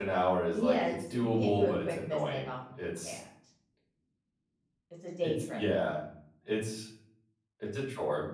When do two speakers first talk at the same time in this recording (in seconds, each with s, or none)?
0.5 s